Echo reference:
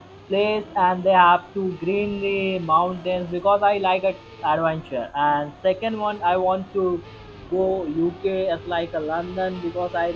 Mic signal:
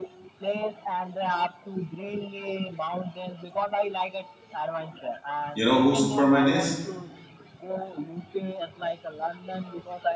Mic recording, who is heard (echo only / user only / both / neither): both